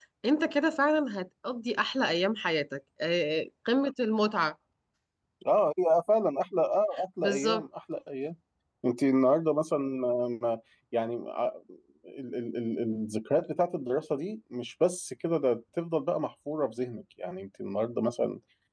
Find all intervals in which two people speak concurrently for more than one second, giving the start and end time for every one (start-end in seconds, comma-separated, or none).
none